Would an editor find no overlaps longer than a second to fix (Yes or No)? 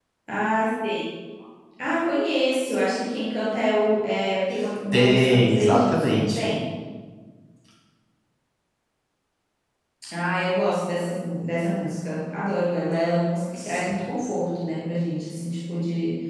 No